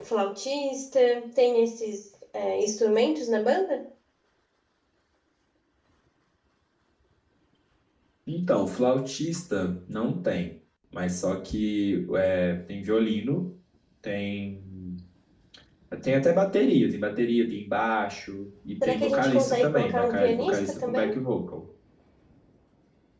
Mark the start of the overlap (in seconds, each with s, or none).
18.8 s